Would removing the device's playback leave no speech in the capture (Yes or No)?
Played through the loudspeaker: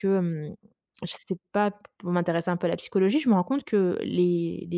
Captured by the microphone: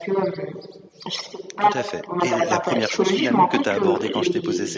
No